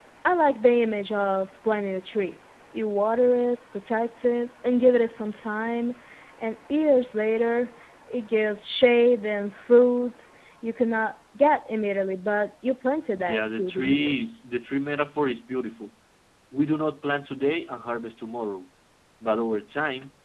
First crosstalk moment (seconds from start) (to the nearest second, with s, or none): 13 s